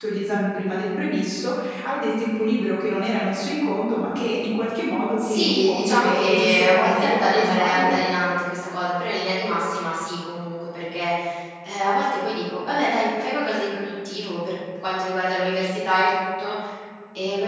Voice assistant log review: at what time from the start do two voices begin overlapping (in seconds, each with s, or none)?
5.2 s